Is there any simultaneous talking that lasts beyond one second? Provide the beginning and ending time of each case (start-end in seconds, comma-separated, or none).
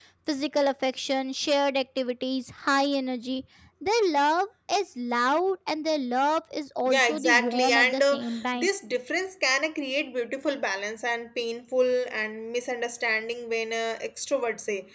6.9-8.7